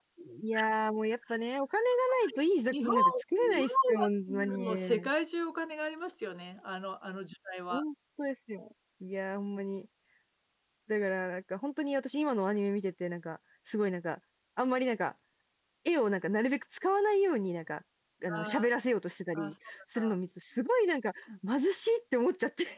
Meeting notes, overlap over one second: present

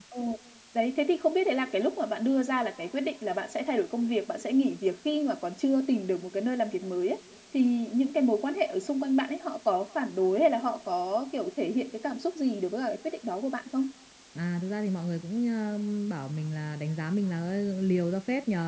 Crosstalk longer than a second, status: none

